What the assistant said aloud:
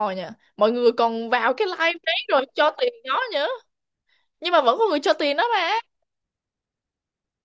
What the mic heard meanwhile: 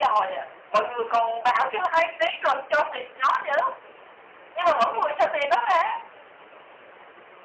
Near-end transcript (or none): none